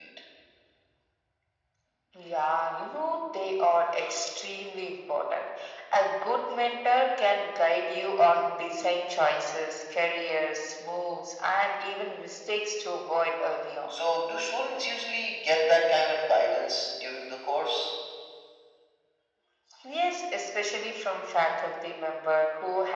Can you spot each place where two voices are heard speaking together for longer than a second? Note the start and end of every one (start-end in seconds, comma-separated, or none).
none